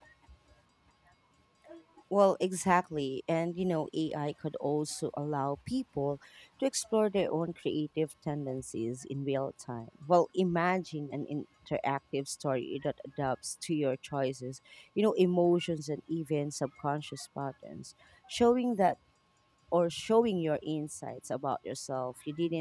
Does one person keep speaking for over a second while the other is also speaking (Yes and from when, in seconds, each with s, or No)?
No